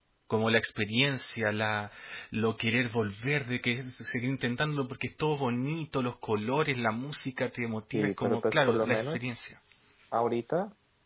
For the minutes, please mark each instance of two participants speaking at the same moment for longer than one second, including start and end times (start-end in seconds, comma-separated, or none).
7.9-9.2